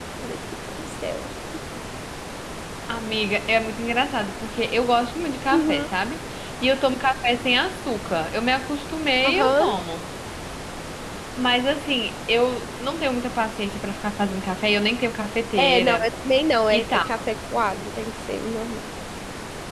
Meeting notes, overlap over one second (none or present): none